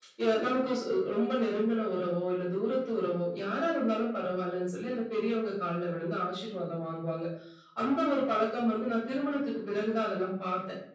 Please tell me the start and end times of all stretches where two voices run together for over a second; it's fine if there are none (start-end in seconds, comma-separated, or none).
none